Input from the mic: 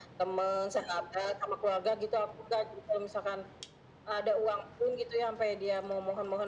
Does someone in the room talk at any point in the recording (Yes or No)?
No